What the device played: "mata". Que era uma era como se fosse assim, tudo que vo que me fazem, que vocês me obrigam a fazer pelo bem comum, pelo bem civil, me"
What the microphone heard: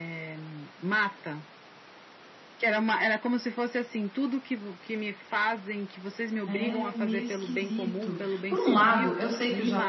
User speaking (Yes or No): Yes